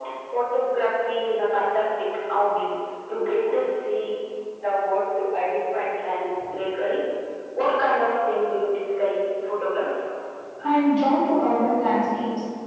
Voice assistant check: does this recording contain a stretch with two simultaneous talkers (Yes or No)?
No